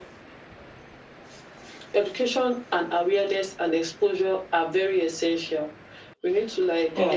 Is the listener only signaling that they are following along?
Yes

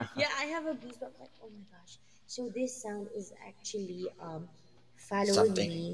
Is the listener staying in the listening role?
Yes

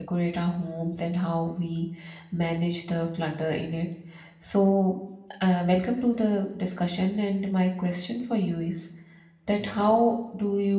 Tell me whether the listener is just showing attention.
Yes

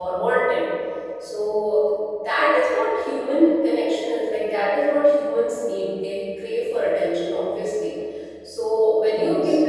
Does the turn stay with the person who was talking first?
Yes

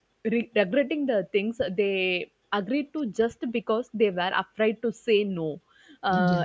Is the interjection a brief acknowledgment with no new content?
Yes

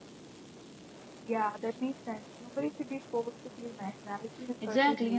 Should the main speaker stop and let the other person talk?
Yes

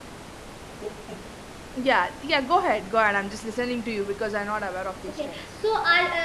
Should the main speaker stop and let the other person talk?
Yes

